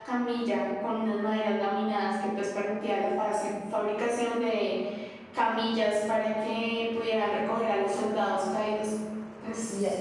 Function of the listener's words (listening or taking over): taking over